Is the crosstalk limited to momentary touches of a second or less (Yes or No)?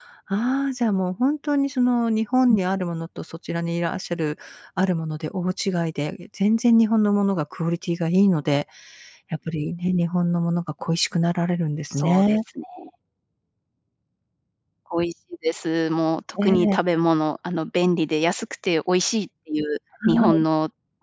Yes